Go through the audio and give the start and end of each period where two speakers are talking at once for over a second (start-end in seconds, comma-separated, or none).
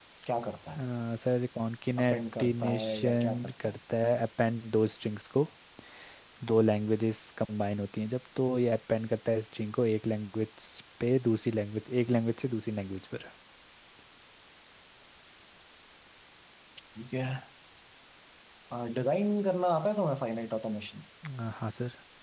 2.0-3.7